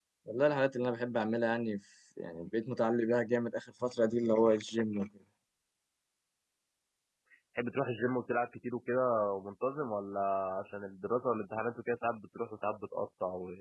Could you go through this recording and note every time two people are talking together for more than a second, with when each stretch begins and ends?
none

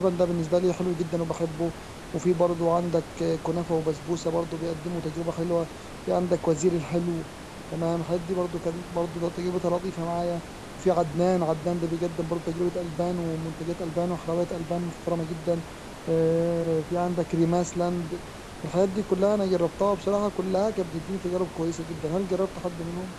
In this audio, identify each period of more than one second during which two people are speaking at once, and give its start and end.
none

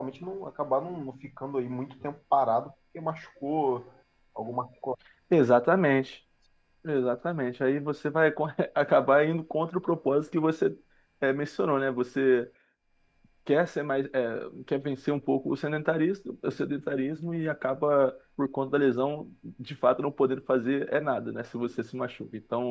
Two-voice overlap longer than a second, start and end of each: none

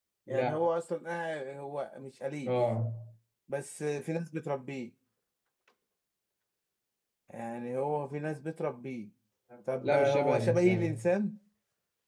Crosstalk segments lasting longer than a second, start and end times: 9.8-11.0

